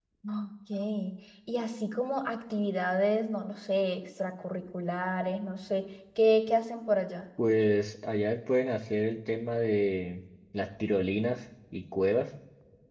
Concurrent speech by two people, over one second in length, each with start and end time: none

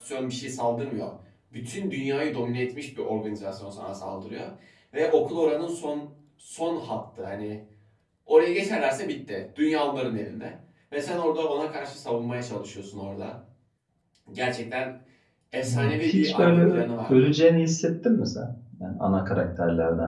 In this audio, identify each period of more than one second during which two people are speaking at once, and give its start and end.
15.7-17.3

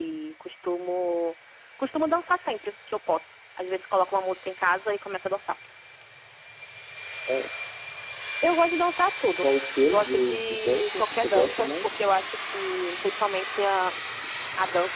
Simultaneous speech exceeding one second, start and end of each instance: 9.9-11.9

